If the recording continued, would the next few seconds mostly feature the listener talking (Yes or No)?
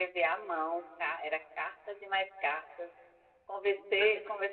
No